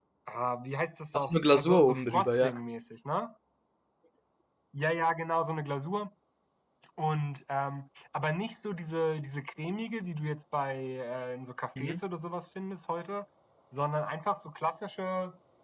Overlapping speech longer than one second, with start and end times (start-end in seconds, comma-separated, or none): 1.1-2.6